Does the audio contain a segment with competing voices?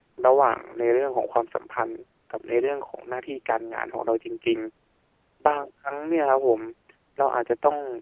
No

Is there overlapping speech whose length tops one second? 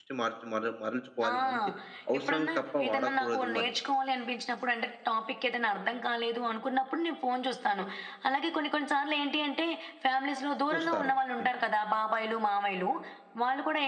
Yes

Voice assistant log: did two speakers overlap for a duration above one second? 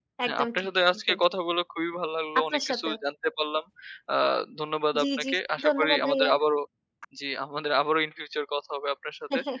Yes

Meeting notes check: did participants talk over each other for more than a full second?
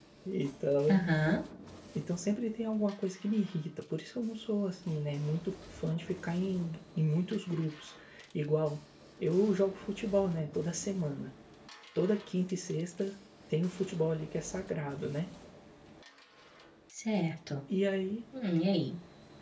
No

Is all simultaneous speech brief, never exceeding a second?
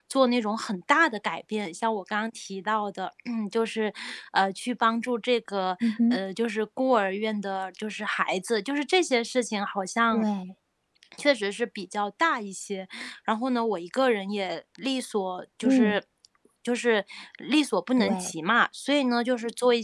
Yes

